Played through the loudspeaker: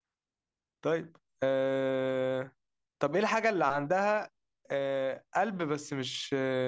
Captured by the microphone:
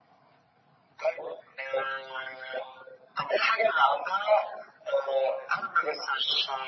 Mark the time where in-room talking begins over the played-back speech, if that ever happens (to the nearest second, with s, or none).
none